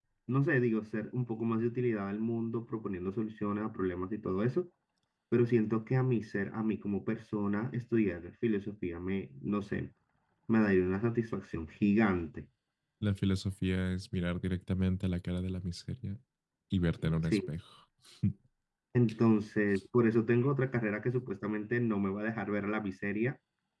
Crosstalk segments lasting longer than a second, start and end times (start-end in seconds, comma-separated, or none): none